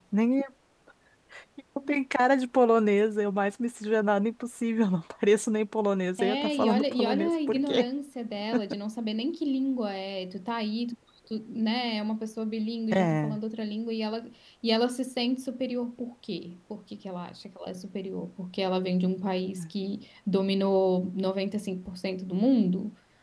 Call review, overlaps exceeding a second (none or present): present